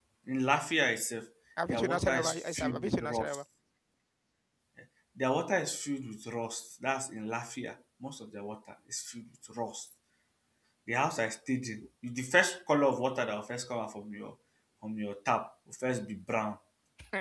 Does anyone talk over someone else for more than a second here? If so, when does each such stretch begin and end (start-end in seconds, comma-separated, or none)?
1.7-3.4